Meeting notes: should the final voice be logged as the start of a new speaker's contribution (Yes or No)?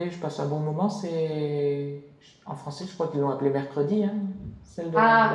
Yes